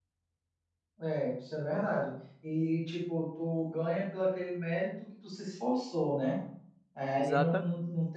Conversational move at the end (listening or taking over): listening